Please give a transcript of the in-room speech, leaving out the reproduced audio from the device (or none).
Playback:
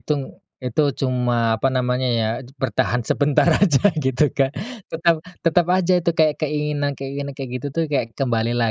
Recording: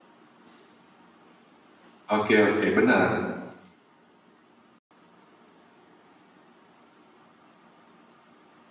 Oke oke benar.